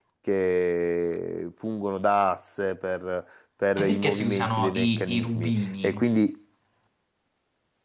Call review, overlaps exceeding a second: present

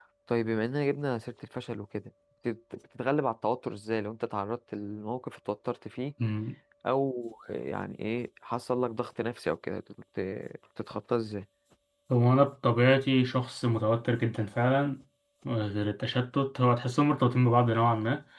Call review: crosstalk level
none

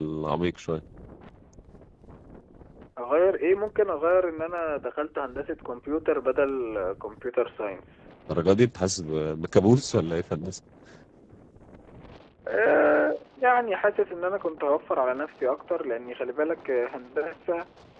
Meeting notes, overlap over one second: none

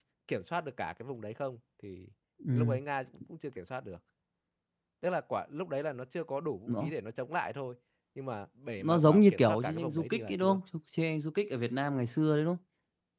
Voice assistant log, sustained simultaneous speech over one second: present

